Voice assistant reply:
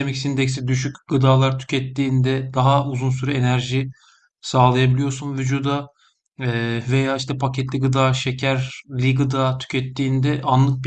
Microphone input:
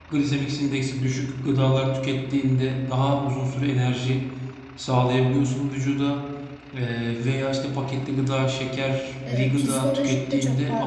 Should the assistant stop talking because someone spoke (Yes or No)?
Yes